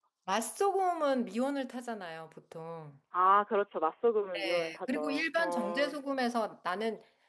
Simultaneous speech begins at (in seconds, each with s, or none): 4.3 s